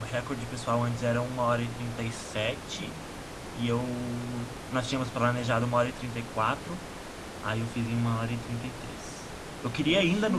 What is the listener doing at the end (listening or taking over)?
listening